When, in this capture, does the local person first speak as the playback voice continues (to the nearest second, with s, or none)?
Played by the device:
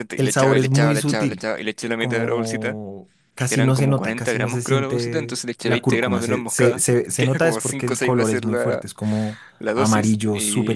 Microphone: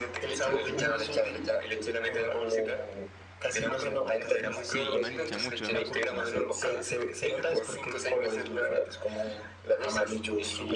5 s